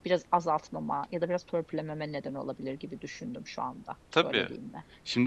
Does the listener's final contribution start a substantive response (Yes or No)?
Yes